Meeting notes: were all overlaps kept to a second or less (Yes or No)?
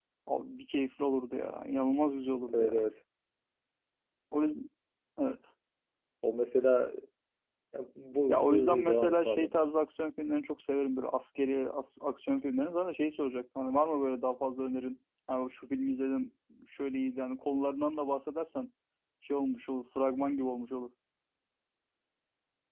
No